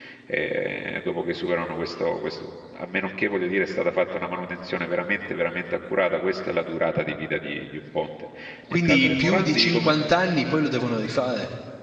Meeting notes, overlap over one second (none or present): present